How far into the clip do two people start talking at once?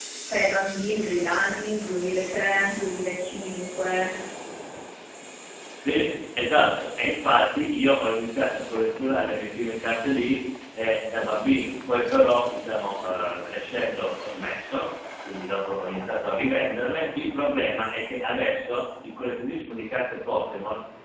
none

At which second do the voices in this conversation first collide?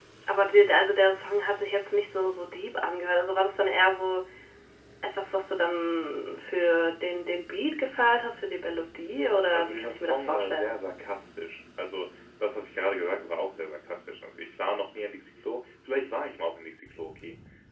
10 s

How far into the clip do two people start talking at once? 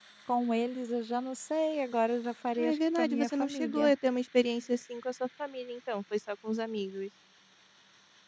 3 s

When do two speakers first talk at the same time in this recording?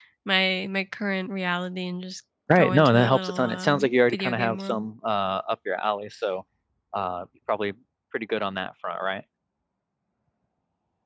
2 s

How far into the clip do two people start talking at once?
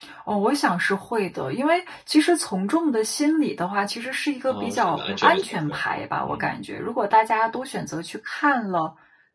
4 s

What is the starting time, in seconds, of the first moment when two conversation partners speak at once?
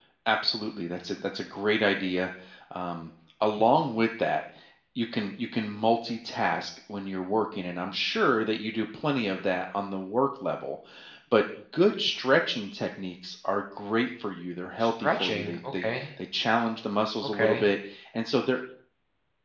15 s

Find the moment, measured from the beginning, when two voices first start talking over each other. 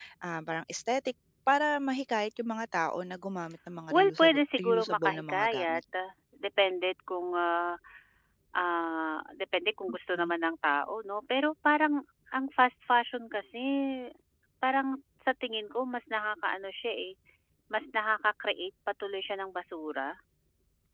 4 s

